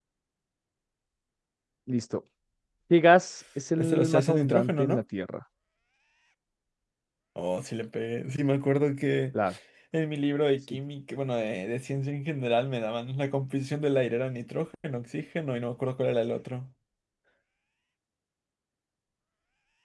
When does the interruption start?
3.8 s

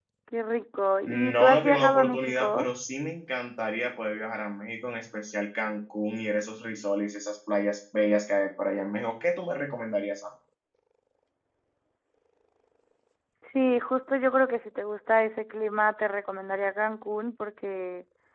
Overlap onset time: 1.1 s

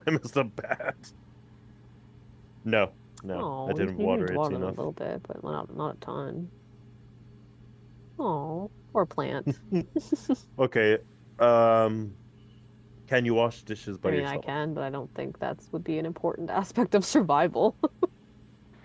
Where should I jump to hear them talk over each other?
3.3 s

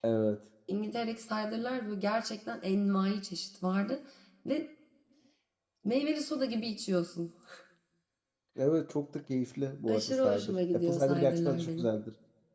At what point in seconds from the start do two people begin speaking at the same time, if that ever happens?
9.9 s

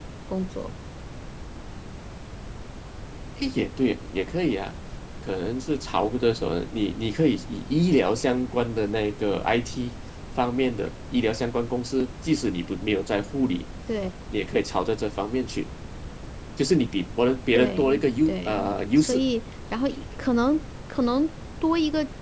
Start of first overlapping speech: 17.5 s

